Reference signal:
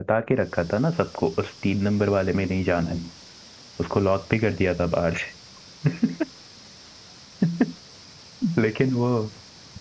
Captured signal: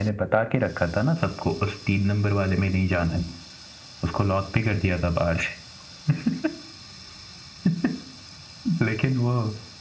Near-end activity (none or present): none